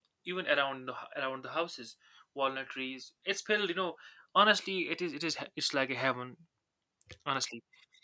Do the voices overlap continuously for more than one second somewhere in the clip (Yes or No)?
No